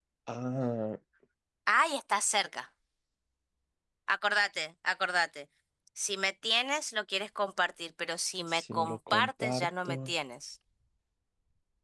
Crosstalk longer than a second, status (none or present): present